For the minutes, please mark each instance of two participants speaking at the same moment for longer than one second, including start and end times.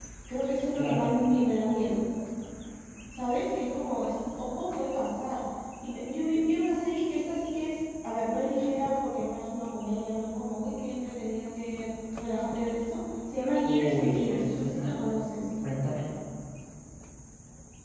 13.6-15.0

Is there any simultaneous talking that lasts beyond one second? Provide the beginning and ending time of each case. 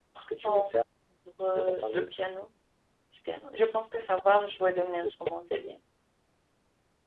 none

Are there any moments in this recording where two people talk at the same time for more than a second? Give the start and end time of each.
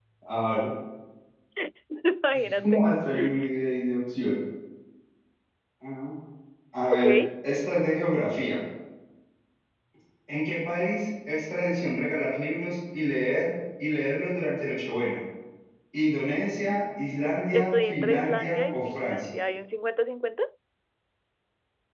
17.5-19.2

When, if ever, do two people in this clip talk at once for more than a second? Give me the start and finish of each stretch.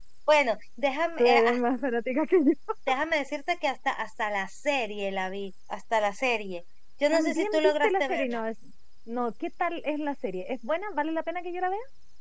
7.1-8.4

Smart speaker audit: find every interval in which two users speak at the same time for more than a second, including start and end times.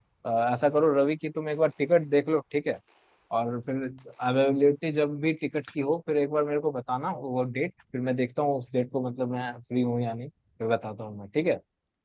none

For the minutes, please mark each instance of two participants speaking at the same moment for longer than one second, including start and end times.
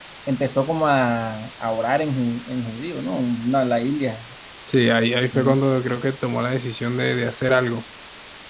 none

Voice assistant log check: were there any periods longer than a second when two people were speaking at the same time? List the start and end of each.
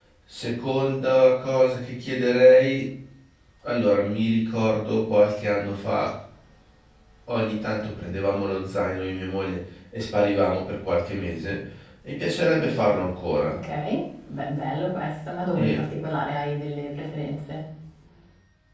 none

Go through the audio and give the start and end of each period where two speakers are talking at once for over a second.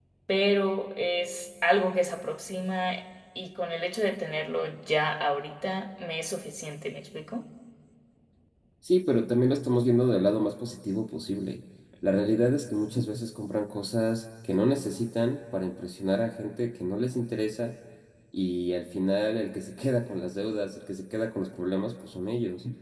none

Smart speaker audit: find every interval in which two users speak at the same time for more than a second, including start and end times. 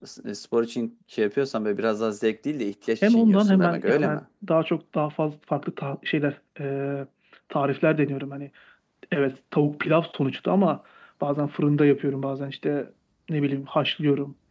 3.0-4.2

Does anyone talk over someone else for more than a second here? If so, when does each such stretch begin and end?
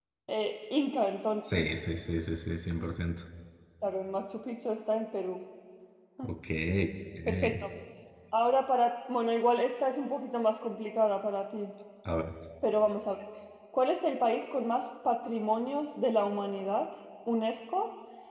none

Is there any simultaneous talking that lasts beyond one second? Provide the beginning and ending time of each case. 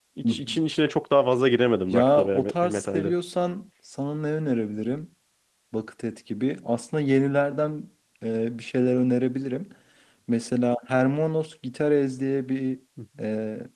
1.9-3.1

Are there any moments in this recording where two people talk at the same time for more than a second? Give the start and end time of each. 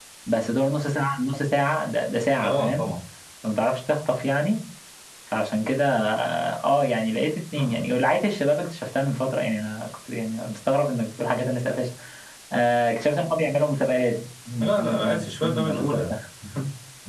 14.6-16.1

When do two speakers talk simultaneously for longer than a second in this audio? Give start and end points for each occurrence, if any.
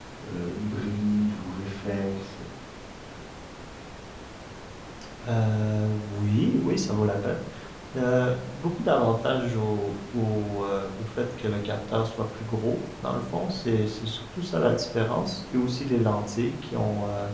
none

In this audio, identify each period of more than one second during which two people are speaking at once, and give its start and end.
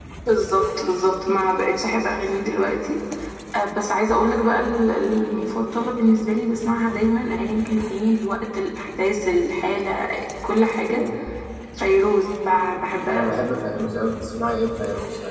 none

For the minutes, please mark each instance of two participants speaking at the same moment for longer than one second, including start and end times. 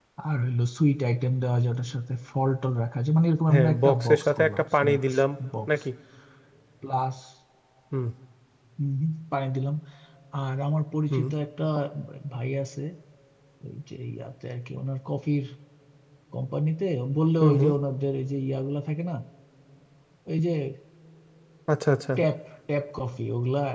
3.5-5.0

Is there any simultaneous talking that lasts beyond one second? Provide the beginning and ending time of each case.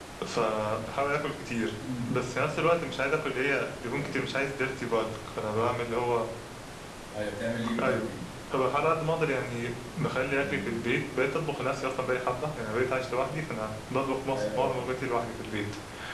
none

